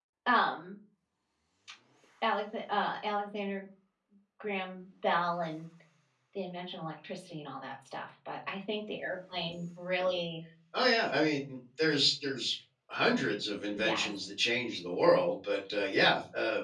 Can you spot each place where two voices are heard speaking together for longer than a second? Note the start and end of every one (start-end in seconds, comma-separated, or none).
none